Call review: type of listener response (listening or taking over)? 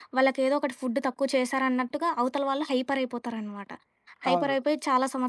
listening